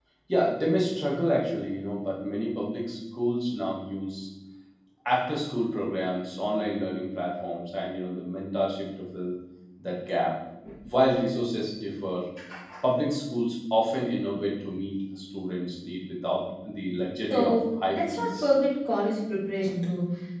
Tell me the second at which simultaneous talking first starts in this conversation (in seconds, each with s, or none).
17.3 s